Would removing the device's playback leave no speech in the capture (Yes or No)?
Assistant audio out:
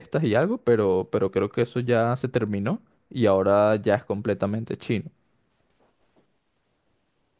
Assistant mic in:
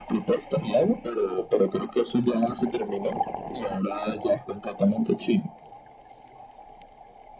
Yes